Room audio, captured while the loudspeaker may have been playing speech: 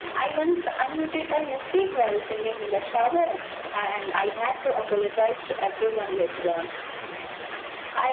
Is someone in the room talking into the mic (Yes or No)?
No